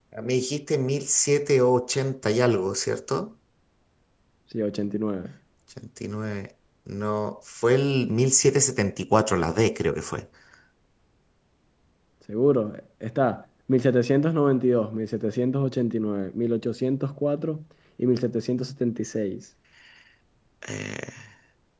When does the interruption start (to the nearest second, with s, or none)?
none